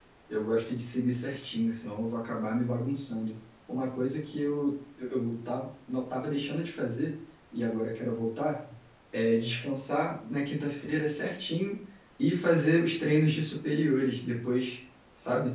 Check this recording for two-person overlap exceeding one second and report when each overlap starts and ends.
none

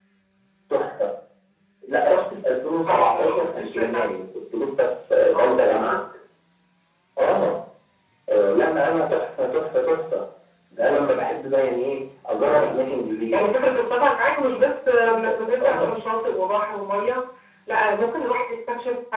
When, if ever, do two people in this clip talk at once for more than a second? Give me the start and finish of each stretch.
2.9-4.1

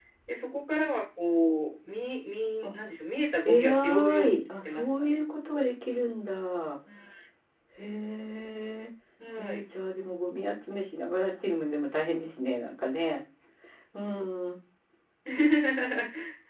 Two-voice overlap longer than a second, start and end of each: 3.4-5.2

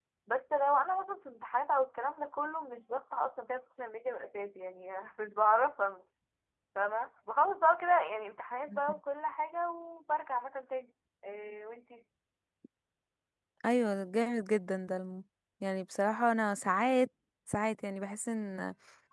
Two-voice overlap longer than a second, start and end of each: none

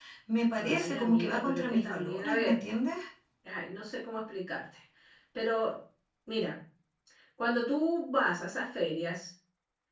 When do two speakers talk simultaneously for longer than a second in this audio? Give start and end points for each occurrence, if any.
0.6-2.6

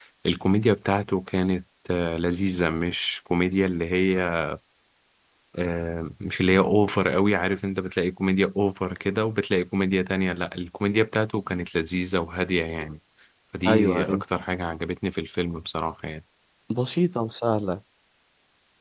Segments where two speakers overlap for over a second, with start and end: none

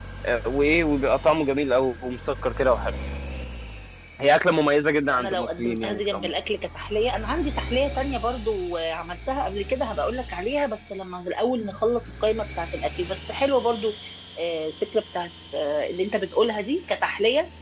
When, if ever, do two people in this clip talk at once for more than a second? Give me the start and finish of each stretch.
5.1-6.3

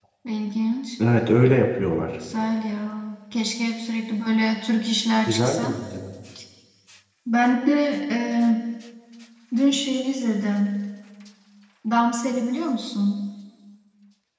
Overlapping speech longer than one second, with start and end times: none

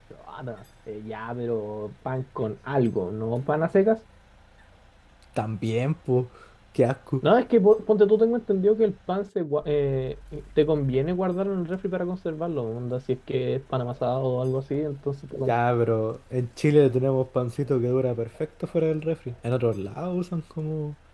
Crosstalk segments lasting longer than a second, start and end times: none

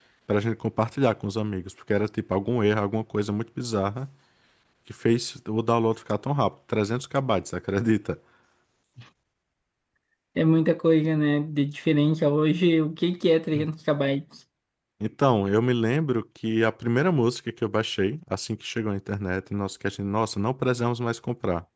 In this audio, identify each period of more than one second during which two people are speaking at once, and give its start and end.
none

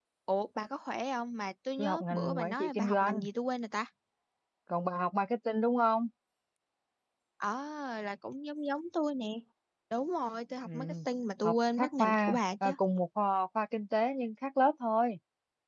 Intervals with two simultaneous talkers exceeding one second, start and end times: 1.8-3.2, 11.4-12.7

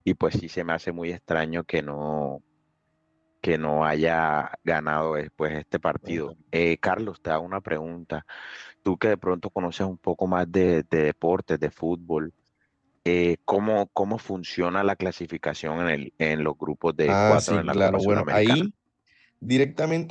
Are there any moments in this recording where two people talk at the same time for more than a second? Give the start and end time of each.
17.1-18.6

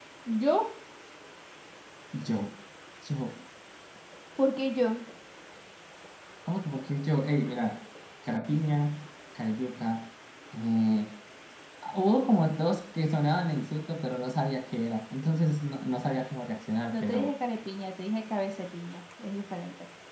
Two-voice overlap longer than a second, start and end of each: none

